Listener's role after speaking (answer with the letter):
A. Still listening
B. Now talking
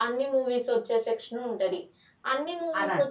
A